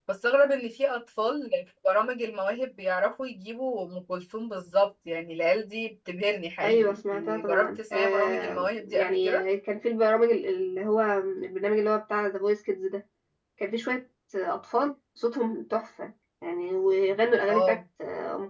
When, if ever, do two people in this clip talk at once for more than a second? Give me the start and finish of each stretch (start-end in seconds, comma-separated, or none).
6.6-9.4